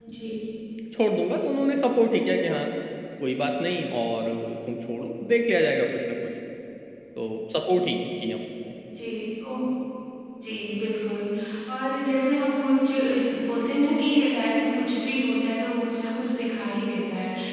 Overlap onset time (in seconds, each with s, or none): none